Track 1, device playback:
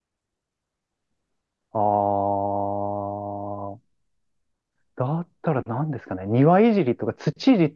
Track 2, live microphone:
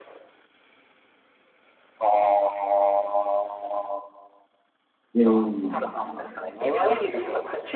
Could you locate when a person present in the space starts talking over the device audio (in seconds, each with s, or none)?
5.2 s